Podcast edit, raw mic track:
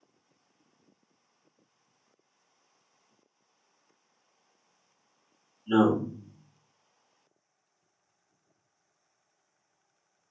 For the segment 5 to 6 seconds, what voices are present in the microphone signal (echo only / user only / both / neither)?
user only